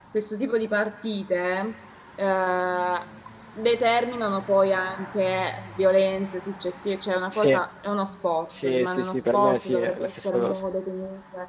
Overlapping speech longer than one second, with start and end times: 8.6-10.6

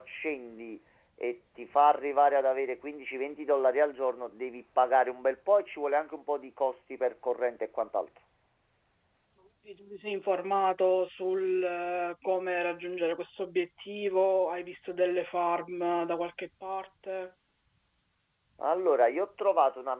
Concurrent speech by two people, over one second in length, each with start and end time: none

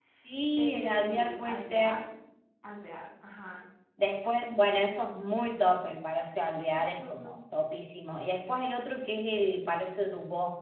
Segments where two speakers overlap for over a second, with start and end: 0.6-2.0

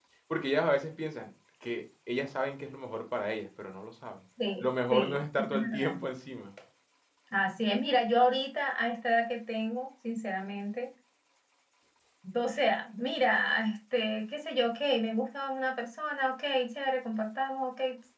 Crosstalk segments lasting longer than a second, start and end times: 4.6-6.0

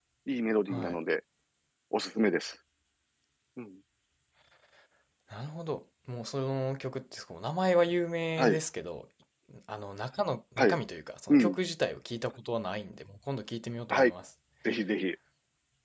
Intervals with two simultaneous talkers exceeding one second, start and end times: none

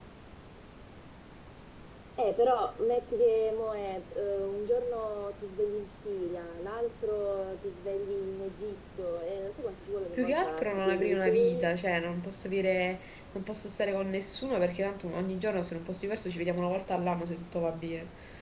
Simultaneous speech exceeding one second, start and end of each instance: 10.2-11.7

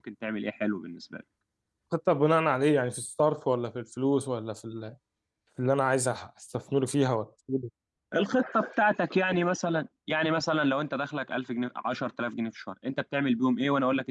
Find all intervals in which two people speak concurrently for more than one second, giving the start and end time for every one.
none

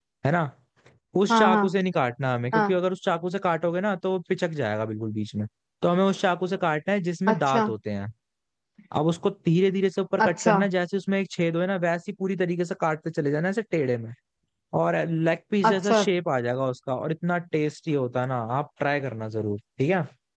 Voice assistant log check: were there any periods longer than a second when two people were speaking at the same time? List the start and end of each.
none

